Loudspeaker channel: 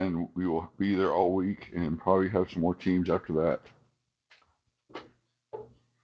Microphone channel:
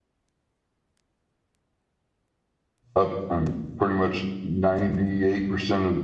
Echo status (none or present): none